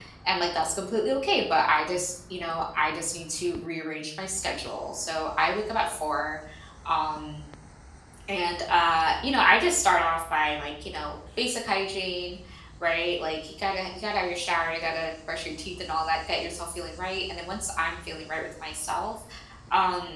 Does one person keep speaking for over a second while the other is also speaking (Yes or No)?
No